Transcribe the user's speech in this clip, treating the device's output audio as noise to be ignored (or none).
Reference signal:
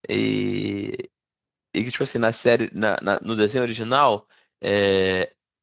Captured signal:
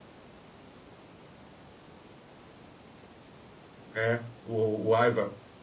É, o, o Aiva.